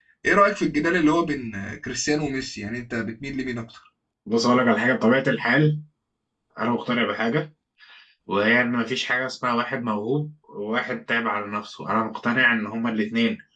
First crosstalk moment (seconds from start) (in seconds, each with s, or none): none